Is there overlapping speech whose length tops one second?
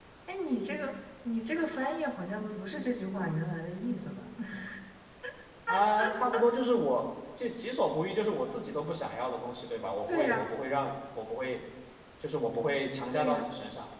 No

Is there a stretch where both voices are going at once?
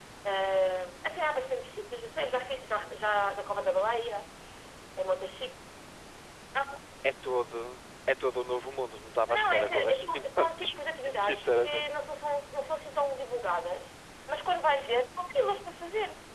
Yes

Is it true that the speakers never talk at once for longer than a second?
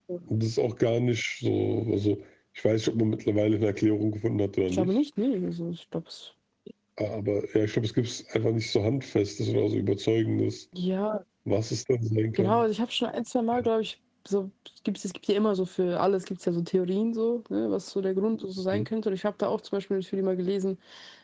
Yes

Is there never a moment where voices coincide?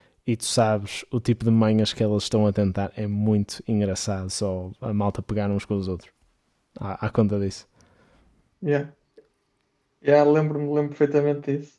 Yes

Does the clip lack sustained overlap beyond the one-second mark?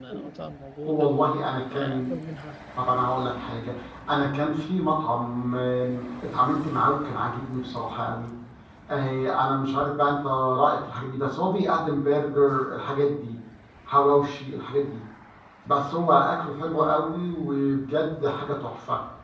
Yes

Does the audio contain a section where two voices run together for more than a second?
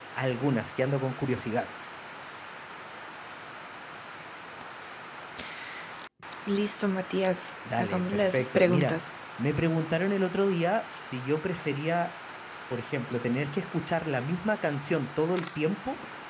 Yes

